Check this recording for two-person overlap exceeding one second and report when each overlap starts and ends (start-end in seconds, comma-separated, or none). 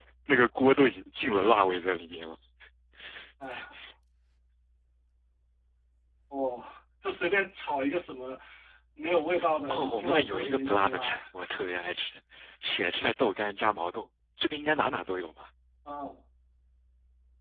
9.7-11.2